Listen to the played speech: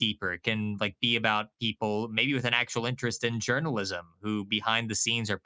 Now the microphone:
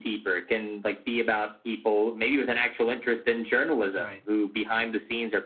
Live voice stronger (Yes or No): No